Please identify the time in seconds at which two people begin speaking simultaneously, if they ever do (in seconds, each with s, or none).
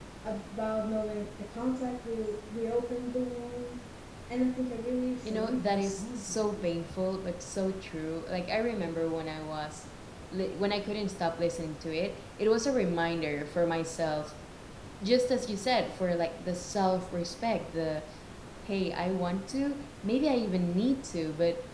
5.2 s